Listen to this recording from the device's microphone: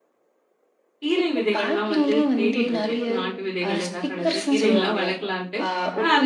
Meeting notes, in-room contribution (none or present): present